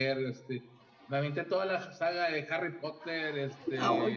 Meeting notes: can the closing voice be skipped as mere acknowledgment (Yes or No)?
Yes